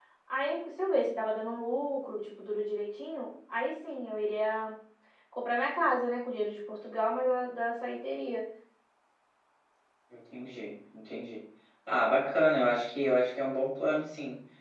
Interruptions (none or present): none